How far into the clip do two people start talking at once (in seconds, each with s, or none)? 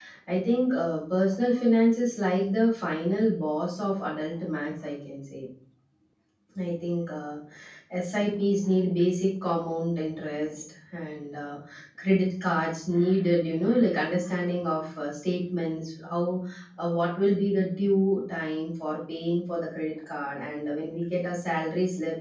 none